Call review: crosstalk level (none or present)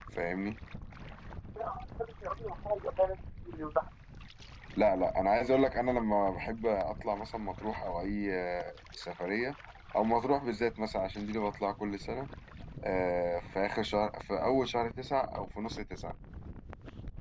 none